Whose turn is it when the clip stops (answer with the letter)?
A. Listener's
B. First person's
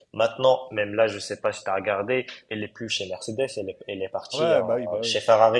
A